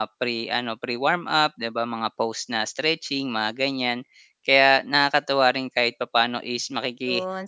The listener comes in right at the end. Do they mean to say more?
Yes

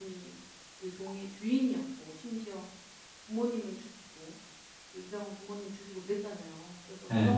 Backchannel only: Yes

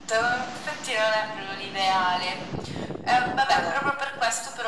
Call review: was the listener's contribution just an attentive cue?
Yes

